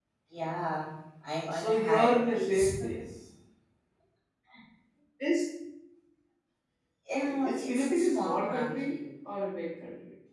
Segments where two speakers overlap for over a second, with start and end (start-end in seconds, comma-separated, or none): 1.5-2.7, 7.2-9.0